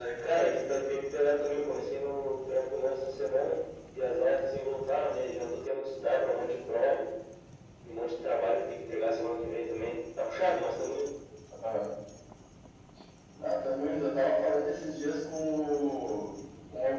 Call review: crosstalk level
none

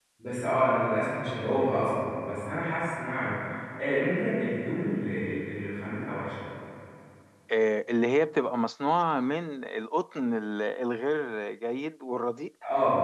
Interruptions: none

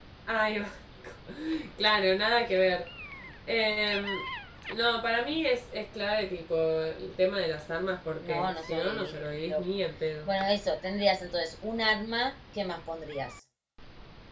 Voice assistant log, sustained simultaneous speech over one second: present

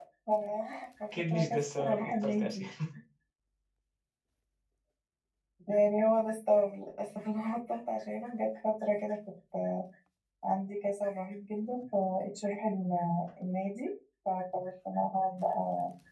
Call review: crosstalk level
present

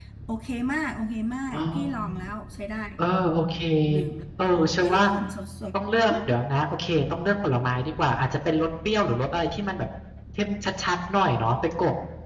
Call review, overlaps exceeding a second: none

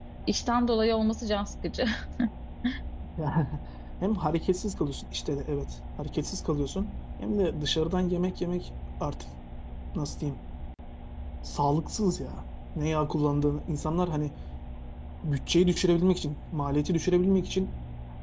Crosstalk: none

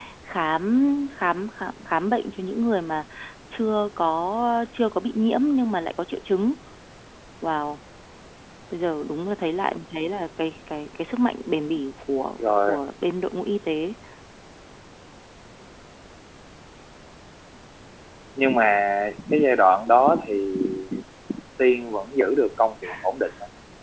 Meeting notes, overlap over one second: none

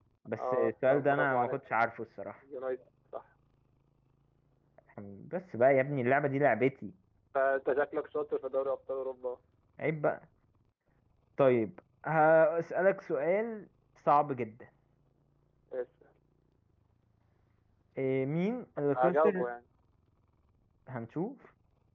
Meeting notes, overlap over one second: present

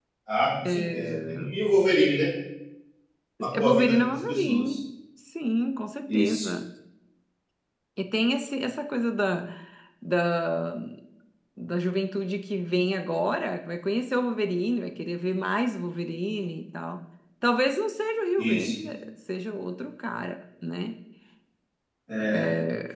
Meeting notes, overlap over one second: present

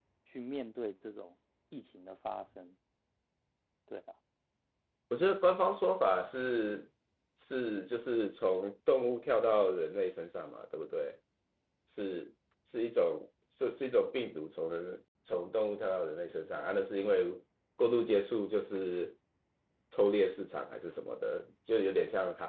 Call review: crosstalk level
none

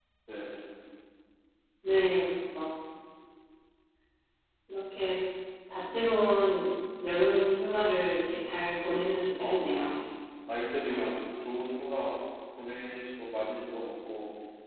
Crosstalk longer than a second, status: none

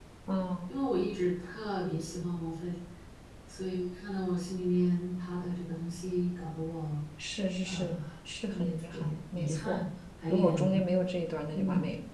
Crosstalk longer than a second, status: present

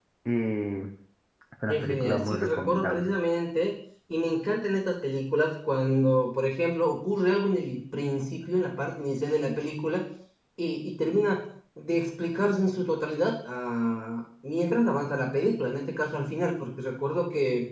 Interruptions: present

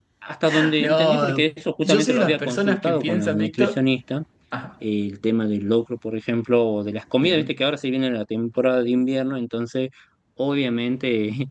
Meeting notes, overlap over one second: present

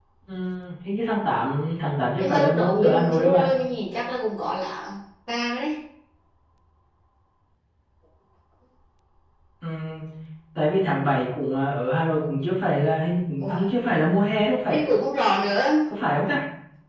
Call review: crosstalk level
present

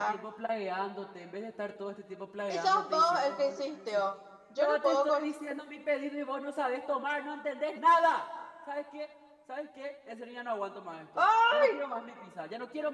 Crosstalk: present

